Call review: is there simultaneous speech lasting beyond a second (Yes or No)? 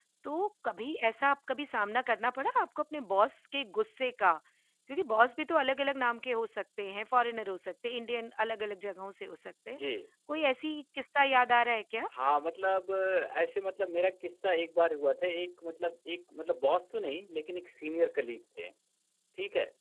No